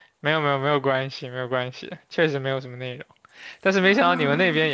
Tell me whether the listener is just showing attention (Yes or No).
Yes